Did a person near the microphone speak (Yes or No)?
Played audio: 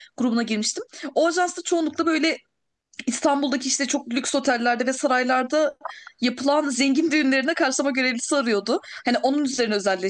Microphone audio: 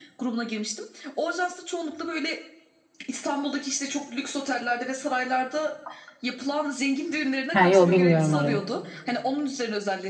Yes